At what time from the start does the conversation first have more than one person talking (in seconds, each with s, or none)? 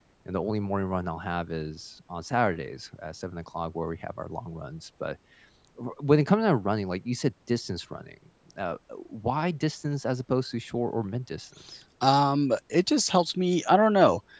none